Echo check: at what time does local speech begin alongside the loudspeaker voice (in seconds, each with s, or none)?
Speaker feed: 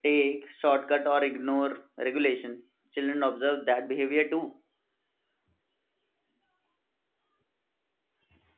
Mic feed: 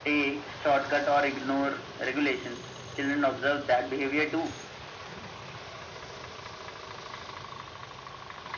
none